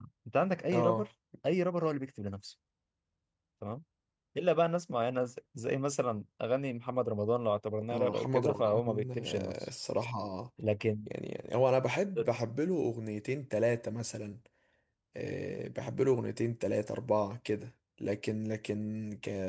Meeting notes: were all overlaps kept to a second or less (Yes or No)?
No